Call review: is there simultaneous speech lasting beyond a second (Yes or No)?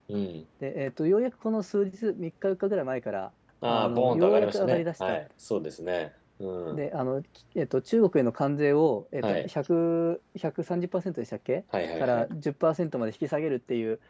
Yes